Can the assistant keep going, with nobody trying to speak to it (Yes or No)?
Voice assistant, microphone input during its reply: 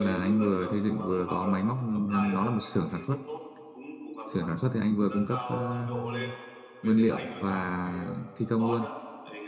No